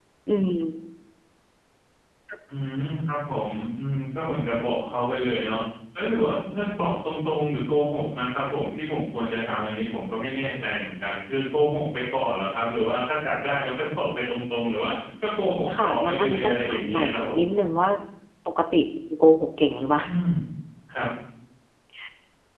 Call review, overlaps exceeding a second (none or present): present